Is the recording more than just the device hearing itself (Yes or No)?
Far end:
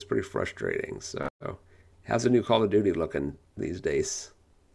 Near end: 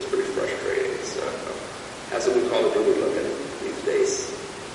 No